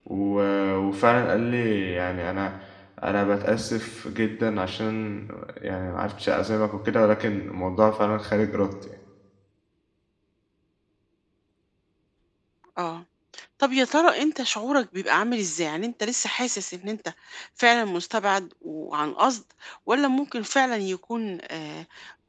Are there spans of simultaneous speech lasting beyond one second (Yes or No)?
No